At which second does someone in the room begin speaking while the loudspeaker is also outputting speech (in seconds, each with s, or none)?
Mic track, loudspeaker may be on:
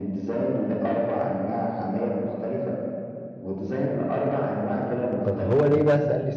5.3 s